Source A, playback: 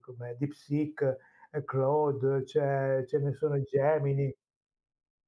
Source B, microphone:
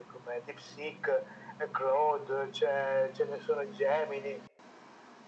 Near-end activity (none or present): none